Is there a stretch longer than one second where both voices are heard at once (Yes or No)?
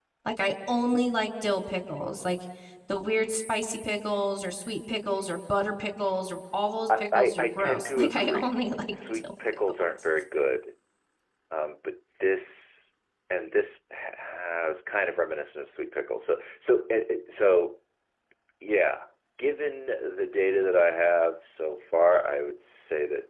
Yes